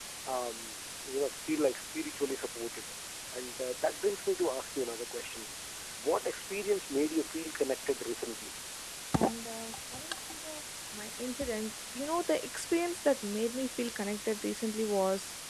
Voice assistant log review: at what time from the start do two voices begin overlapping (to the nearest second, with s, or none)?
none